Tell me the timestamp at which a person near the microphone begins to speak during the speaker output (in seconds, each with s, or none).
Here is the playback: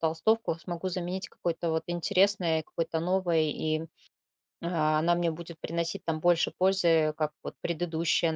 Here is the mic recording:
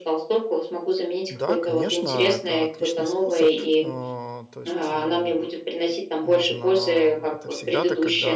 1.3 s